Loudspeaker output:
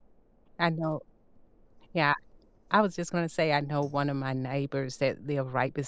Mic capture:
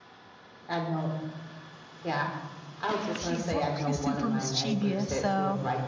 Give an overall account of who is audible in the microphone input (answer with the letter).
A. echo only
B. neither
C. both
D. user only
C